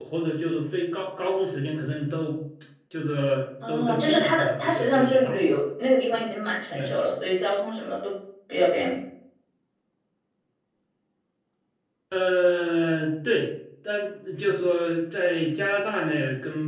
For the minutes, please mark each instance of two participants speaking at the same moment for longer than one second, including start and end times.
3.7-5.3

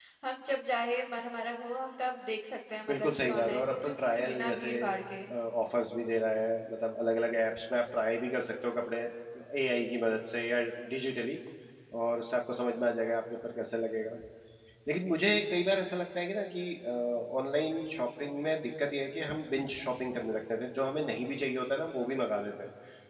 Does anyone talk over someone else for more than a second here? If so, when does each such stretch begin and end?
2.9-4.7

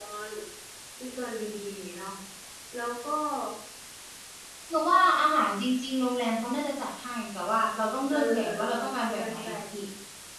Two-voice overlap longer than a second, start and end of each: 8.1-9.5

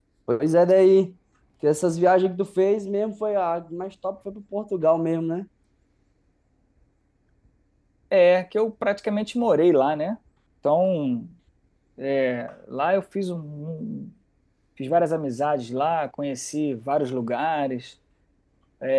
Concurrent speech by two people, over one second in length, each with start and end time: none

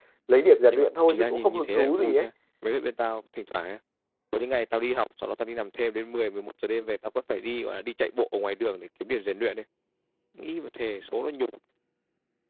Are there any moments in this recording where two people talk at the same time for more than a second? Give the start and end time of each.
0.7-2.2

